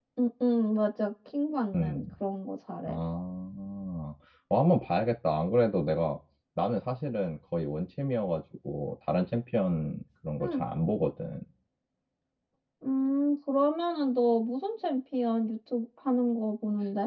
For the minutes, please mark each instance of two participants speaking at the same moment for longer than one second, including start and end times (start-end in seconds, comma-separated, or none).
none